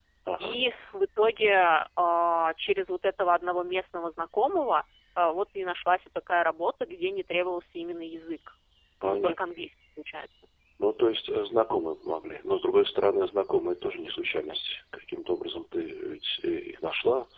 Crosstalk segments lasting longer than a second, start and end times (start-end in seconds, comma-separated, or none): none